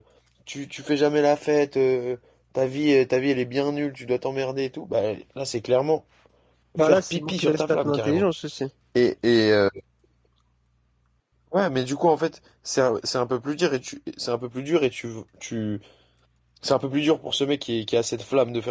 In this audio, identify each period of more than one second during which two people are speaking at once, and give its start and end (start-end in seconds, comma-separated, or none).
6.8-8.2